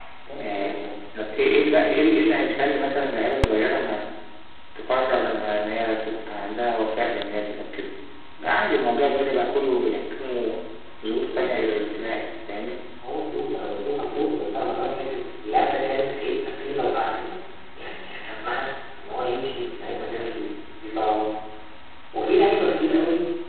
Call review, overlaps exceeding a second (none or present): none